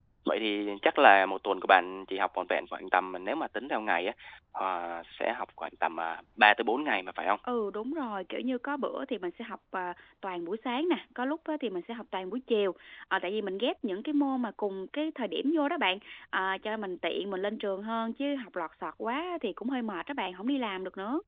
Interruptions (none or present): none